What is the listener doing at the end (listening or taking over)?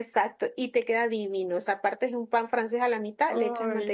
listening